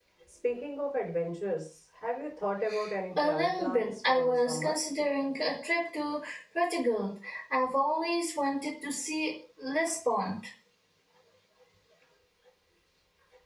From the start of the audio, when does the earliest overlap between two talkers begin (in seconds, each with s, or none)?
3.2 s